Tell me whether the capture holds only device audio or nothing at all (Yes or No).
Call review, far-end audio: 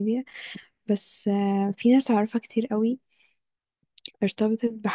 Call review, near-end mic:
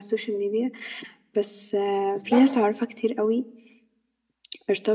No